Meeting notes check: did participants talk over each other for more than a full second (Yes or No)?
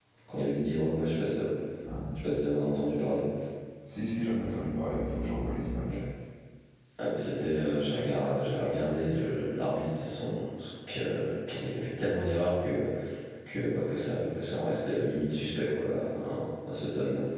No